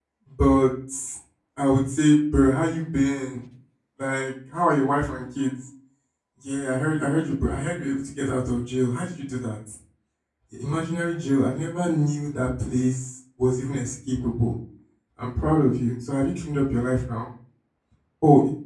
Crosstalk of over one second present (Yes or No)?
No